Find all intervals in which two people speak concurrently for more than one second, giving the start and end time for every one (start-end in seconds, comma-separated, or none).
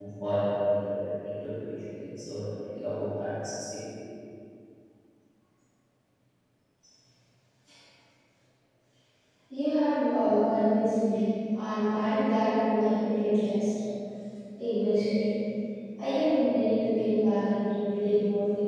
none